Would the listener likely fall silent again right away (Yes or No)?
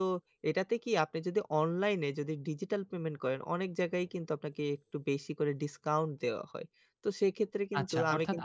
No